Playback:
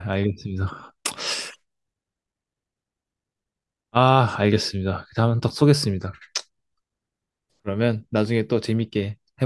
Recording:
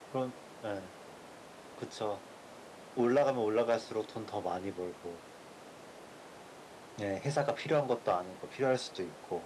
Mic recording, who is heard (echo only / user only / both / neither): user only